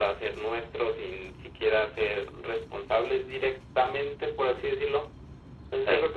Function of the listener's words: listening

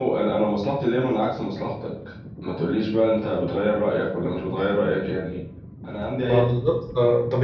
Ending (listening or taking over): taking over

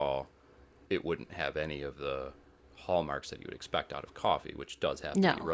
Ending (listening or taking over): listening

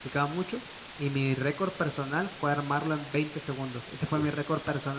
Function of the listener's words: listening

